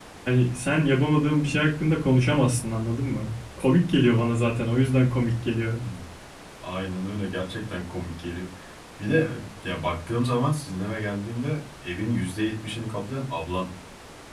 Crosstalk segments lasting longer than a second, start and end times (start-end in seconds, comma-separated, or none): none